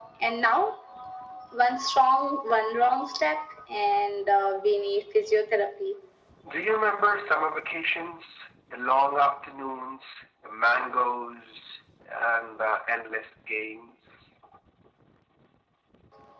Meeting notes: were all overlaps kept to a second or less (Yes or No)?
Yes